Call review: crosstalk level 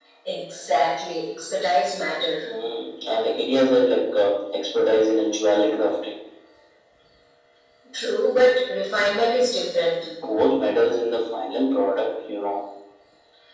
none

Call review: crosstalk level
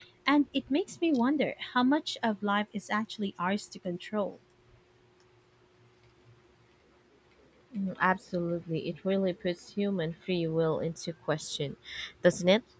none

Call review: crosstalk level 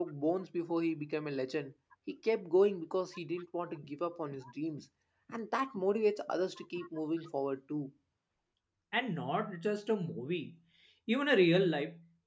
none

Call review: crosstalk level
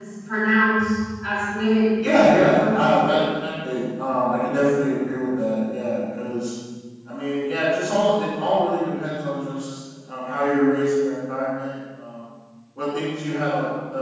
present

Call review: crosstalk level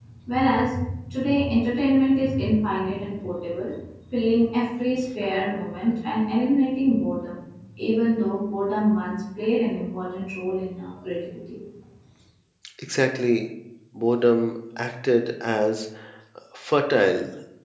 none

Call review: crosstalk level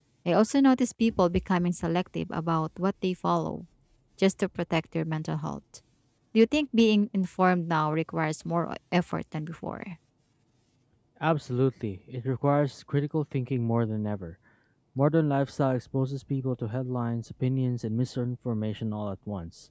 none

